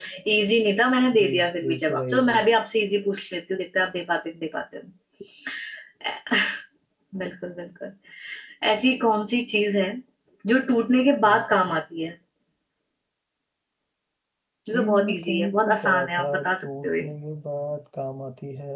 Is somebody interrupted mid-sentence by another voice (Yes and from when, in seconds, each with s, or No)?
Yes, from 1.1 s